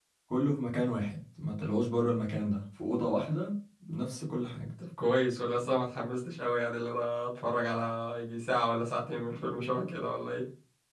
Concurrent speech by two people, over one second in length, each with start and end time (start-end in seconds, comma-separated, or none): none